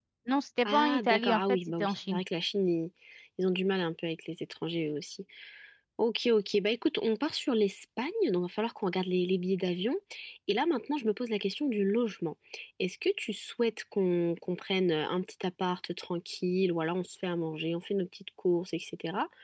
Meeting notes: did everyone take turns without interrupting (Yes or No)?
No